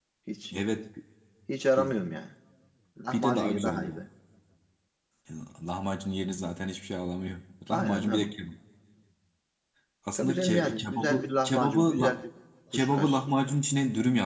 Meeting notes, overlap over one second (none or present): present